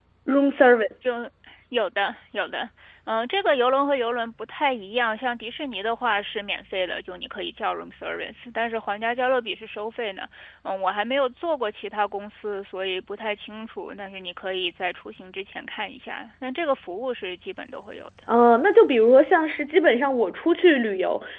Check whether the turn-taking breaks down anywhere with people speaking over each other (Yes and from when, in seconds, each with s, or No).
No